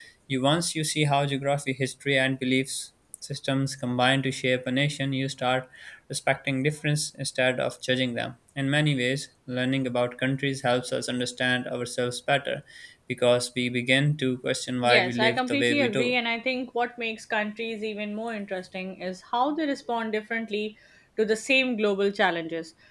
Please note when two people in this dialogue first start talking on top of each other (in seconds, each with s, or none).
14.8 s